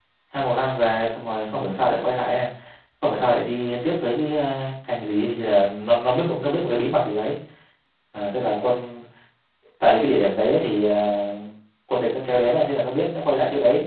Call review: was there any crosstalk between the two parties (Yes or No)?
No